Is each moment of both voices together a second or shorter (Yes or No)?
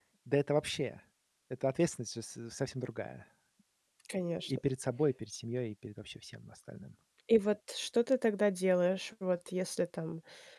Yes